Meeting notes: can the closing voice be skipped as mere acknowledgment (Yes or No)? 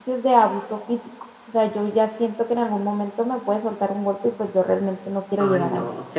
No